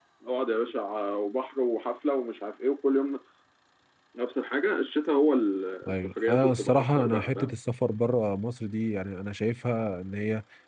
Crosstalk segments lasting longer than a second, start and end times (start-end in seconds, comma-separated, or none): 5.9-7.5